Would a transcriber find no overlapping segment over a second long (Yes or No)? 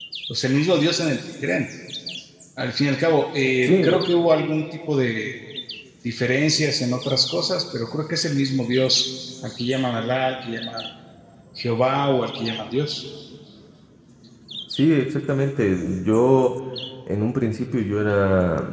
Yes